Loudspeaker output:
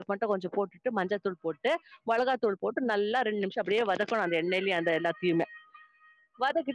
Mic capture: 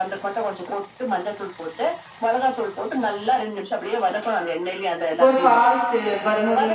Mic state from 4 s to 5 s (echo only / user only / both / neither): echo only